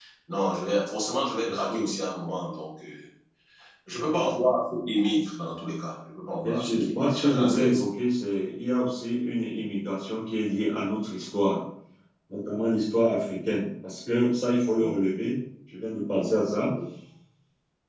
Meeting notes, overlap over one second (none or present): present